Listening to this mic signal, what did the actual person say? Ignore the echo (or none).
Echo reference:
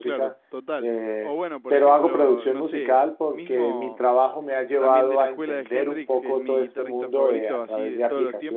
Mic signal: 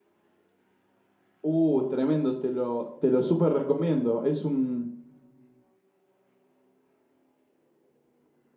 Uh, tremendo, te lo, te lo súper recomiendo. Es un,